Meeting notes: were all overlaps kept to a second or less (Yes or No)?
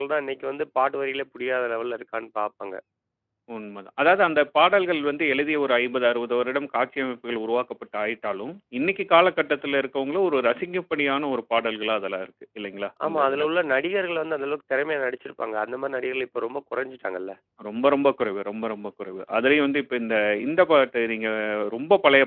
Yes